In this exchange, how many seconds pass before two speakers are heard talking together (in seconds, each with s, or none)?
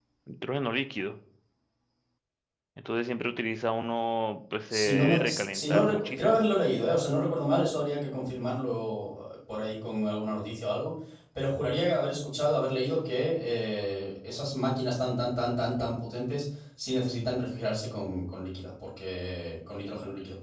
4.7 s